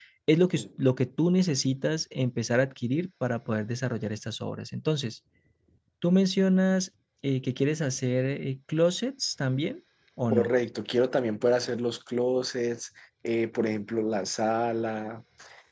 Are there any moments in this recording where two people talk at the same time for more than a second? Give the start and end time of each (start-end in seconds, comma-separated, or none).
none